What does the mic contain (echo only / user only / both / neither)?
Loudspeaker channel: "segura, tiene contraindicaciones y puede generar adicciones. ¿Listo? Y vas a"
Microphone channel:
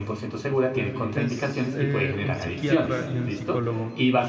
both